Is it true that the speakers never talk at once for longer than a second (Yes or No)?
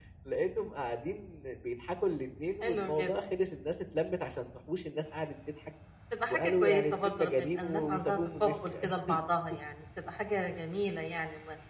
No